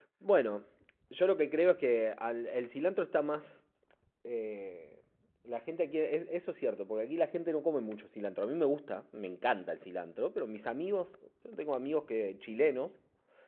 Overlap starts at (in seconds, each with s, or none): none